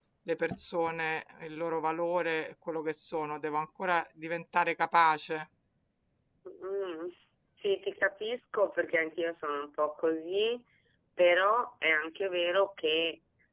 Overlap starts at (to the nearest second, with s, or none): none